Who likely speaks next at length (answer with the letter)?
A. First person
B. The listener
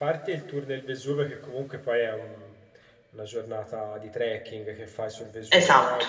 A